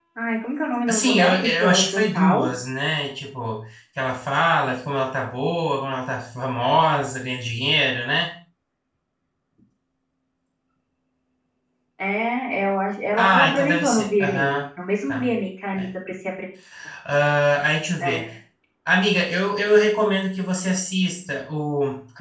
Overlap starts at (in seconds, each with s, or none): 0.9 s